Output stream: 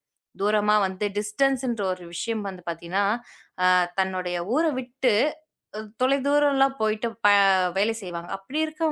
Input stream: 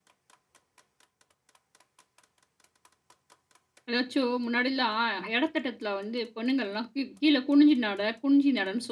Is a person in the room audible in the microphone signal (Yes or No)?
Yes